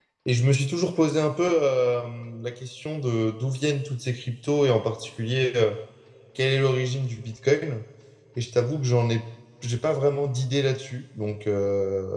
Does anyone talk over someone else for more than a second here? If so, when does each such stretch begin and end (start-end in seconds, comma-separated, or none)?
none